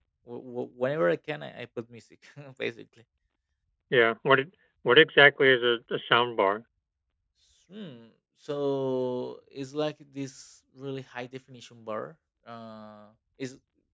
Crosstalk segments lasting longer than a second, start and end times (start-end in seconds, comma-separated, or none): none